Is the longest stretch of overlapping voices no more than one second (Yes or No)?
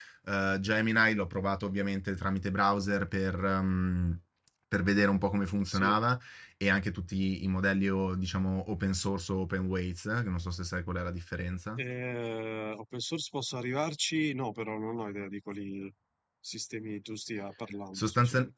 Yes